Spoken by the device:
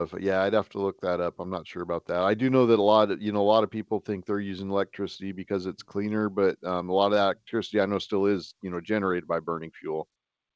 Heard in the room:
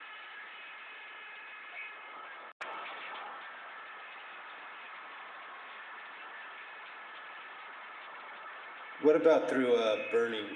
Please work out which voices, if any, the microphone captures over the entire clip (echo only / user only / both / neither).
user only